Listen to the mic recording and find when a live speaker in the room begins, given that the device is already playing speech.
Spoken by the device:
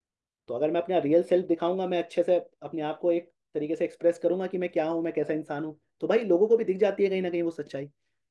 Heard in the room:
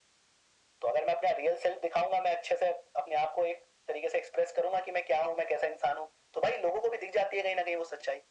none

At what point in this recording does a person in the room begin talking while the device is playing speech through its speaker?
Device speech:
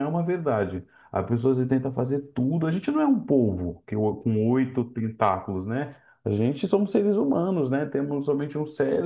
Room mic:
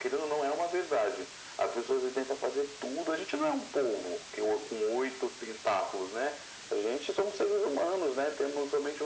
none

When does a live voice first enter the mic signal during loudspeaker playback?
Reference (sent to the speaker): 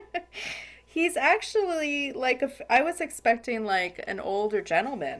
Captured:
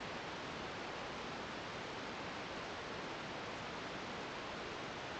none

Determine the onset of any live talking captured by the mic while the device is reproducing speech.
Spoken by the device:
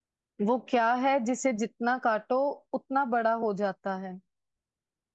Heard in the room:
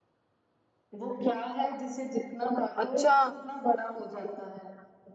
2.8 s

